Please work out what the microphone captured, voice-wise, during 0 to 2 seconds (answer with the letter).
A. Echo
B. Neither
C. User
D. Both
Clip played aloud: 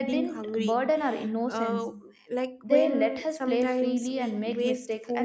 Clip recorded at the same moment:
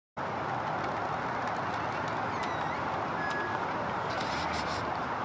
B